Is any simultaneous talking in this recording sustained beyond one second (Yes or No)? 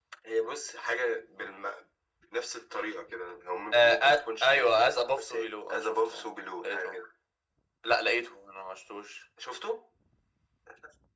Yes